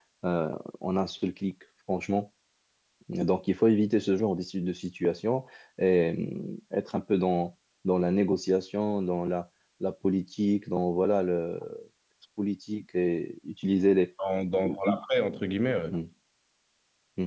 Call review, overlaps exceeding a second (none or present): none